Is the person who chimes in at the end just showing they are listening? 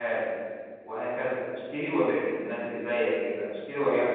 Yes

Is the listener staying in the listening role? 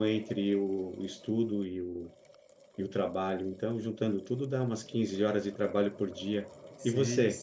No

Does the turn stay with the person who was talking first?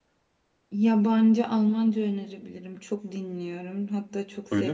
Yes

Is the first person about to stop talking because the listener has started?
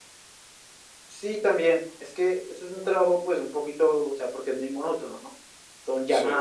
No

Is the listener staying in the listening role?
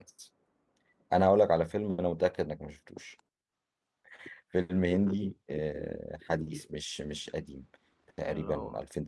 Yes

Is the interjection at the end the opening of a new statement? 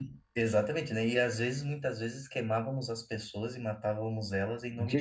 Yes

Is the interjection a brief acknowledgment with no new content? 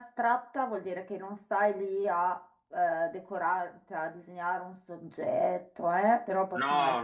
Yes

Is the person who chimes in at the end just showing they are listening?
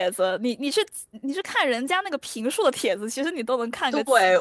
No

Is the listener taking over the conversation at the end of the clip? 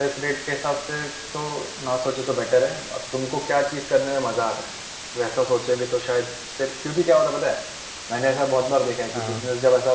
No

